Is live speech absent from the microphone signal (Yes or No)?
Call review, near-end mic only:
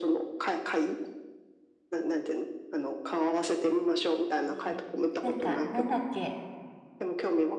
No